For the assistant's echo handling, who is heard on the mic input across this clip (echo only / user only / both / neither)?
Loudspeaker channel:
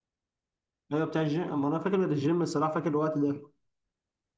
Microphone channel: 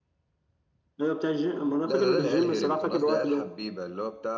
both